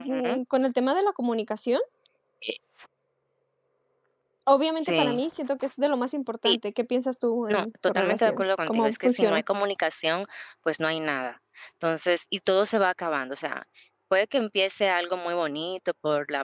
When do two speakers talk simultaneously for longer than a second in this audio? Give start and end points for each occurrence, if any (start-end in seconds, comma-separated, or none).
7.5-9.4